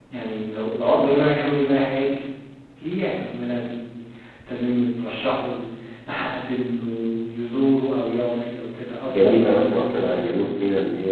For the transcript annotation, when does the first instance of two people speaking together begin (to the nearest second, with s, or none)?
9 s